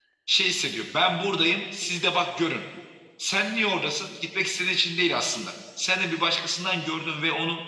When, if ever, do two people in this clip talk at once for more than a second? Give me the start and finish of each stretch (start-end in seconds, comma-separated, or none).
none